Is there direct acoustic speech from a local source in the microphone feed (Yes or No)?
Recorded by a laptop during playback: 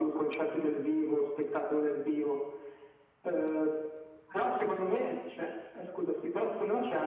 No